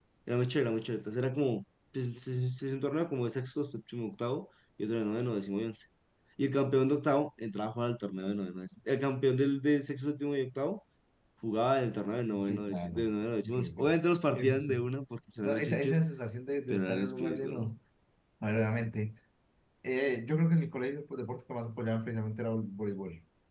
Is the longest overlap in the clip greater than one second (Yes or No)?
Yes